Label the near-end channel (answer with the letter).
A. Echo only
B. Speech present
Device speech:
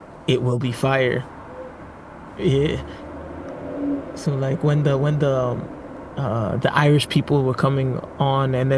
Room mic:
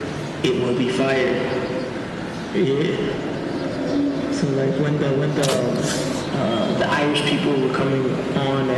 A